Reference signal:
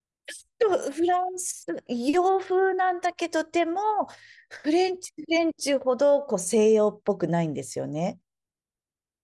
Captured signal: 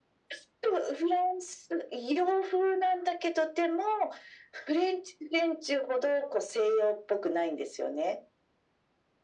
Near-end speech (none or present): none